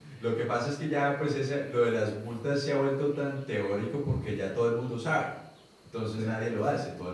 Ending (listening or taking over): listening